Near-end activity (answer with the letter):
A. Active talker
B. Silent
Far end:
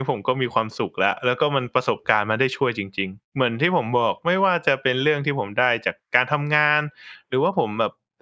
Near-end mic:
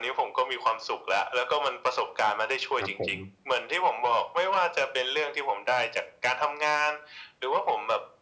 A